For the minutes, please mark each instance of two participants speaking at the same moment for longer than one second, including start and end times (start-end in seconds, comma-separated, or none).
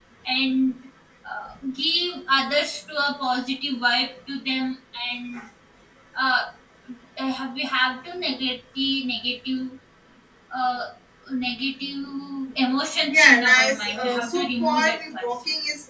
13.1-15.2